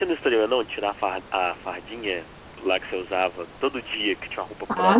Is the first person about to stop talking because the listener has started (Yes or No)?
Yes